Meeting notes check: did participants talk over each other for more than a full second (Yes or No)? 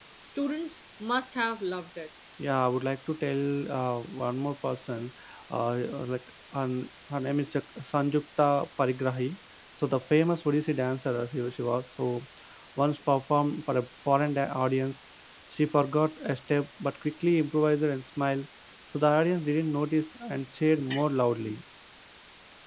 No